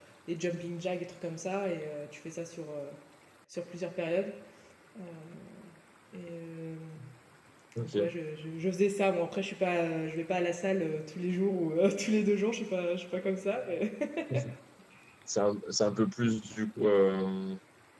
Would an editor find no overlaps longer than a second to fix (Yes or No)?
Yes